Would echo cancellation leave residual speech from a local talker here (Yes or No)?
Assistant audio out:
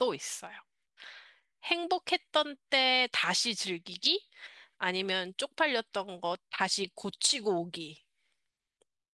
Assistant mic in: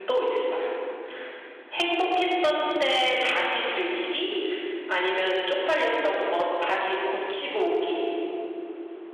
No